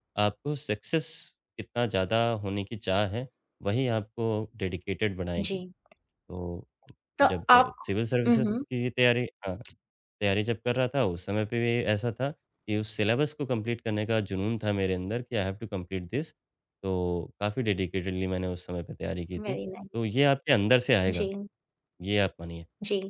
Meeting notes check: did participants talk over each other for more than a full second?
No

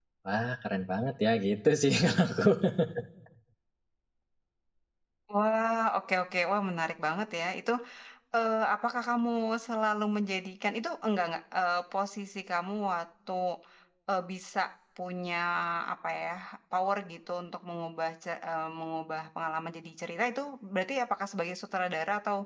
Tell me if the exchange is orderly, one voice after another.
Yes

